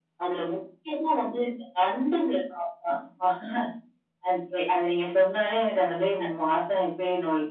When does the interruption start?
none

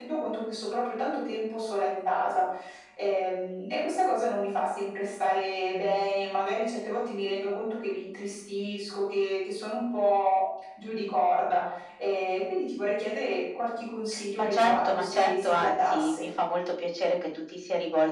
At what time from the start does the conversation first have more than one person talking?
14.1 s

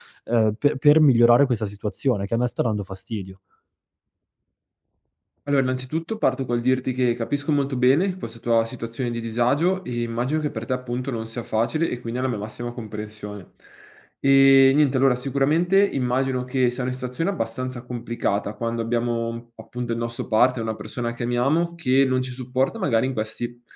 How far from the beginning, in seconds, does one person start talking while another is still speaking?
none

